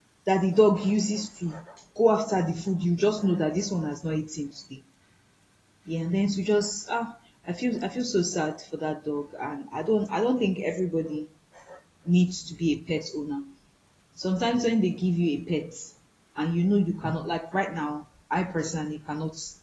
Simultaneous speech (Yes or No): No